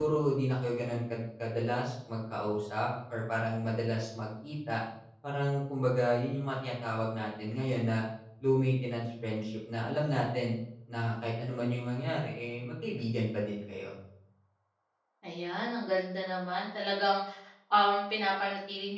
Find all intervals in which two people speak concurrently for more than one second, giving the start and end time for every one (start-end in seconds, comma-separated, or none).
none